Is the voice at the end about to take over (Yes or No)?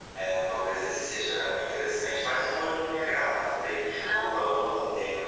No